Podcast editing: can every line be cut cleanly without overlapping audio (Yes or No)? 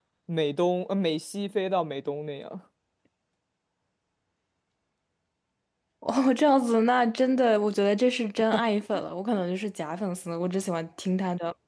Yes